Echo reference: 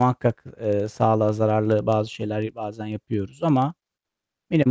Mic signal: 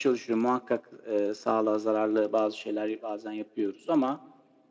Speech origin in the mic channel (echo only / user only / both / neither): echo only